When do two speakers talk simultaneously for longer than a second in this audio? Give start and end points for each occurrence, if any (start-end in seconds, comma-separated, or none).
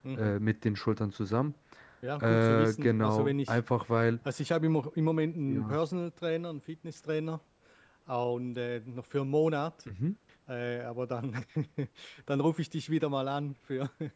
2.2-3.6